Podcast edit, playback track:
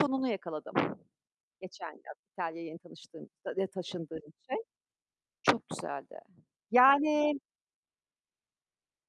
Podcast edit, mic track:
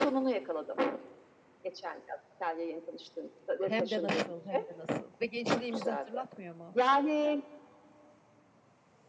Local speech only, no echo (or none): Hem de nasıl, hem de nasıl? Ve gençliğimizi hatırlatmıyor mu?